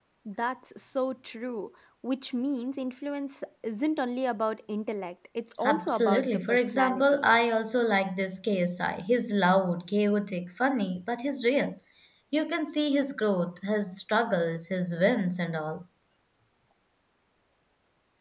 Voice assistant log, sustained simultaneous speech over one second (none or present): present